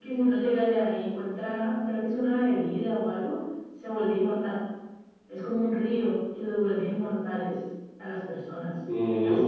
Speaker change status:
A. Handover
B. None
B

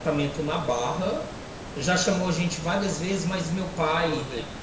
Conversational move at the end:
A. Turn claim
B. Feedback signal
B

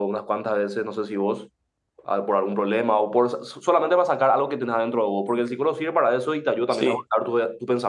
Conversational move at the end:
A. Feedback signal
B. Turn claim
A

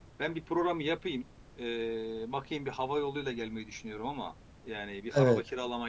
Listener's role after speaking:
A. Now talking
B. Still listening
B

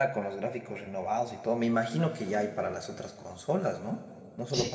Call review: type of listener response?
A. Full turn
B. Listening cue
A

